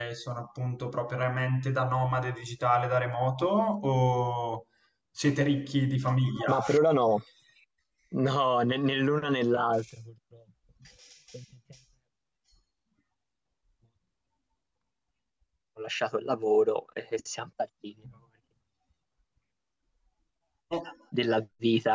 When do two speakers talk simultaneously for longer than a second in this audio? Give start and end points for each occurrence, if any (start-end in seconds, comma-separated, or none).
none